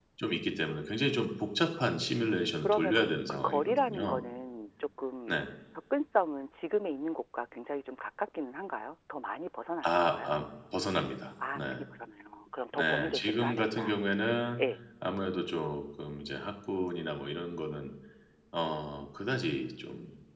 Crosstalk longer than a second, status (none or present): present